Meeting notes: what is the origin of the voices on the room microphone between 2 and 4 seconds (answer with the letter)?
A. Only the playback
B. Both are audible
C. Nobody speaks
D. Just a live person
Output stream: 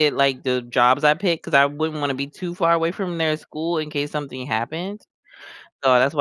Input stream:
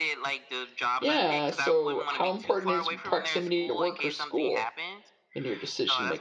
B